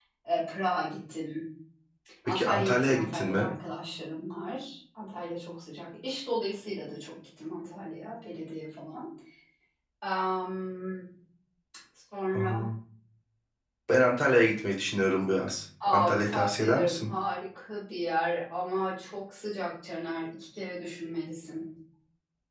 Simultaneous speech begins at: 2.3 s

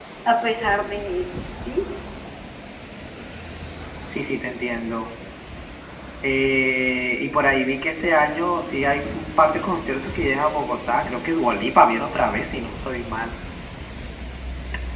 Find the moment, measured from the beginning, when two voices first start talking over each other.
none

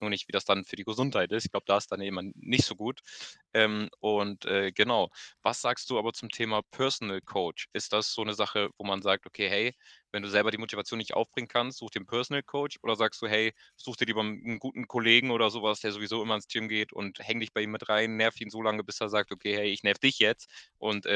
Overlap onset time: none

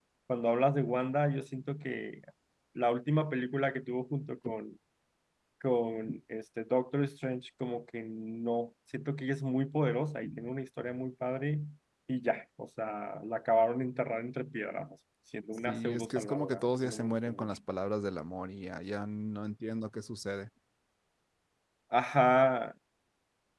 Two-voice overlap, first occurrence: 15.7 s

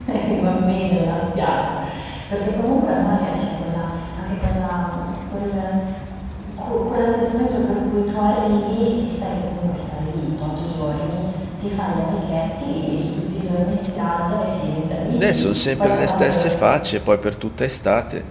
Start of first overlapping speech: 15.1 s

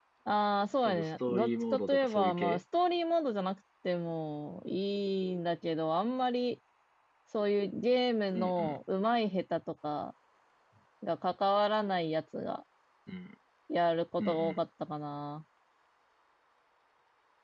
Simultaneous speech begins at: 0.8 s

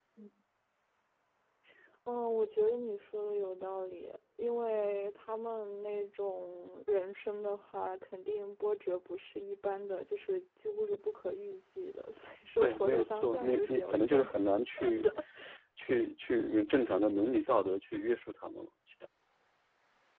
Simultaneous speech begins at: 12.6 s

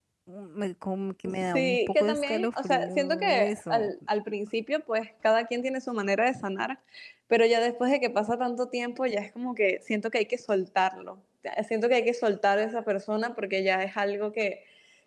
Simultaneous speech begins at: 1.5 s

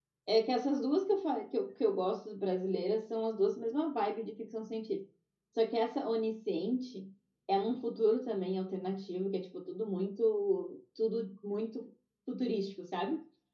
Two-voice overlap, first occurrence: none

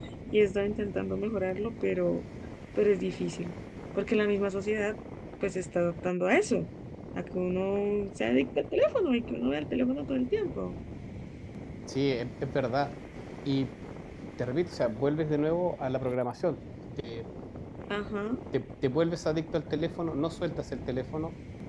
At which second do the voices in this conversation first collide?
none

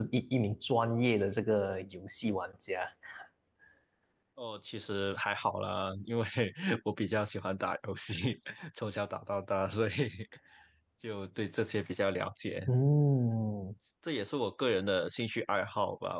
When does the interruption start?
none

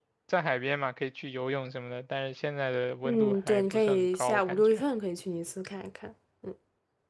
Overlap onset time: 3.0 s

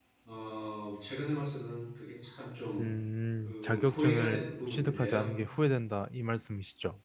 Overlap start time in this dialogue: 3.4 s

